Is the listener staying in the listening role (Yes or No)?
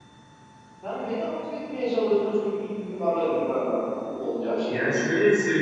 No